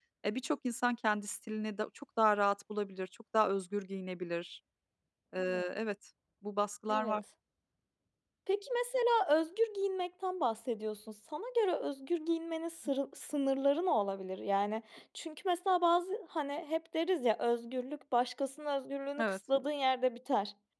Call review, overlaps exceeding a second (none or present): none